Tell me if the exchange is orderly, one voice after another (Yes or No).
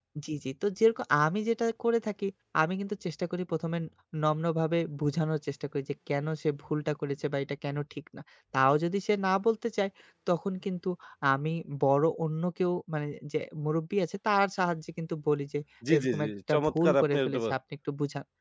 No